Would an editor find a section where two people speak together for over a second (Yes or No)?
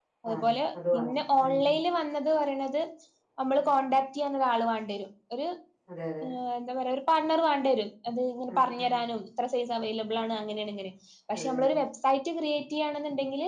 Yes